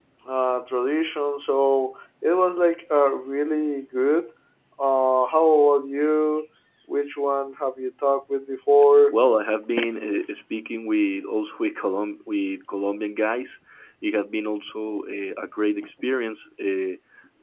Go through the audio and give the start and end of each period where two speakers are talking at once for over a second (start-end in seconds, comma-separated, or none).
none